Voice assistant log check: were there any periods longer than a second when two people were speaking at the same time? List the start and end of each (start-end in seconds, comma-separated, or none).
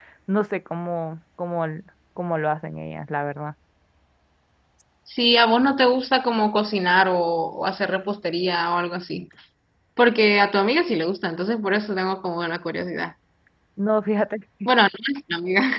none